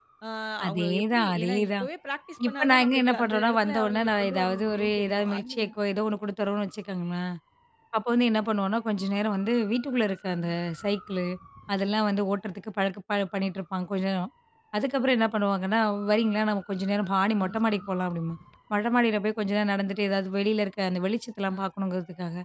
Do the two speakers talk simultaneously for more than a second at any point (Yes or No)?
Yes